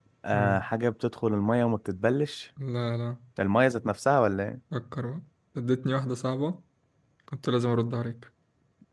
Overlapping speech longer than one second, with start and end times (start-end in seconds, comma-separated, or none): none